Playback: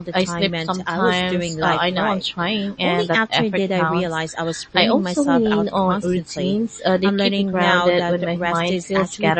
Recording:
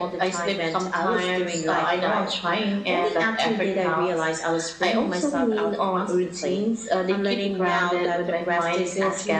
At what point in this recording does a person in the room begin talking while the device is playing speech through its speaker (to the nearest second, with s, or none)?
none